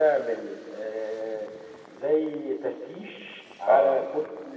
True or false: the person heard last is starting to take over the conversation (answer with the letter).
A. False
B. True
A